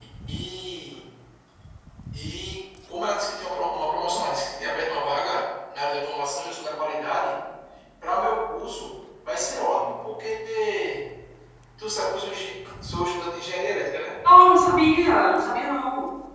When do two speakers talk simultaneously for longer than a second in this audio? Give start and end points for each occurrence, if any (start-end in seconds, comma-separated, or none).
none